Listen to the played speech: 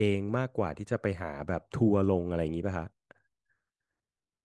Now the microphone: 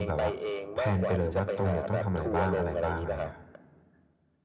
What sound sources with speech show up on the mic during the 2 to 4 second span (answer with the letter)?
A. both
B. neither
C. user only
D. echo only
A